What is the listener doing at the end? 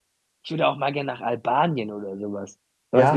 taking over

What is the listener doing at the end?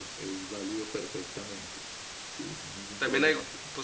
taking over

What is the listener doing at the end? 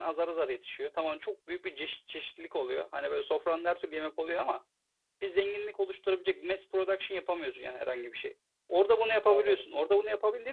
listening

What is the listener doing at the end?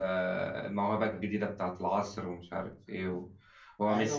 taking over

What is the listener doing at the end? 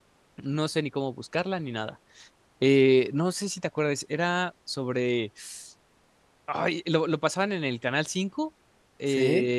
listening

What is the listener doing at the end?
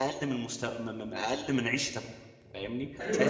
taking over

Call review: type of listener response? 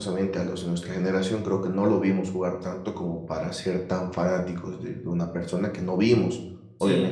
listening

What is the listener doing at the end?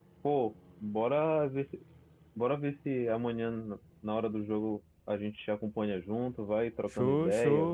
taking over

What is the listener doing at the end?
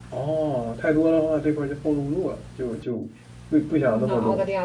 taking over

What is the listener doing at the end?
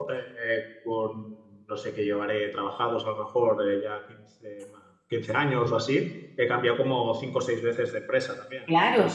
taking over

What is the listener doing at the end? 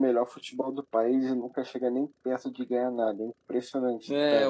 taking over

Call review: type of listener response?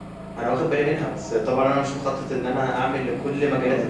listening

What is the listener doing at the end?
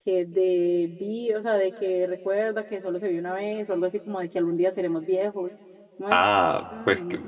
taking over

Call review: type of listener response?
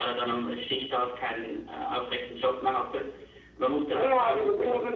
taking over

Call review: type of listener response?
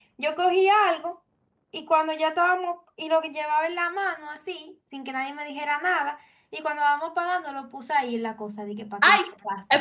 taking over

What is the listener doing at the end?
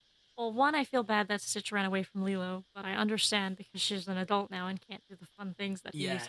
taking over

